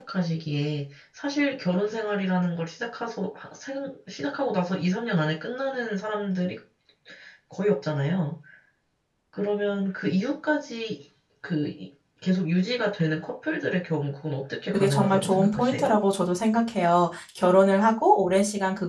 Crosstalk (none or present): present